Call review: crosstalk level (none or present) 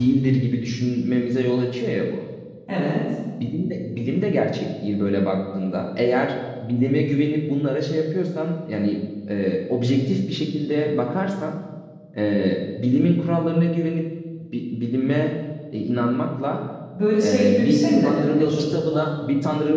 present